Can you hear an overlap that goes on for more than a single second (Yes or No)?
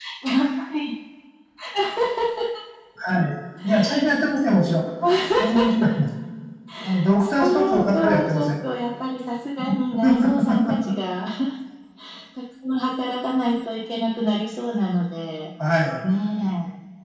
Yes